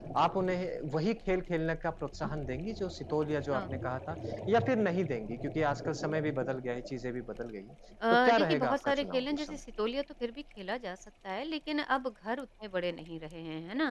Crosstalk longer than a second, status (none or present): present